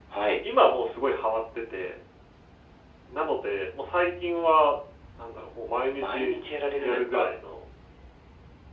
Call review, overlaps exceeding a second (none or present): none